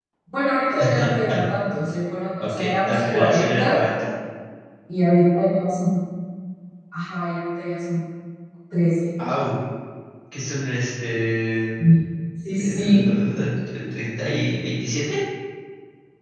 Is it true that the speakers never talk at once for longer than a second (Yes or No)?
No